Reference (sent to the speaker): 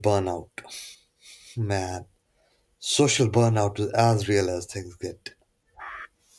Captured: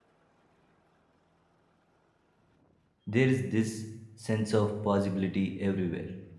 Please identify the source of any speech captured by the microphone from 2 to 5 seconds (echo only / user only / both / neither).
user only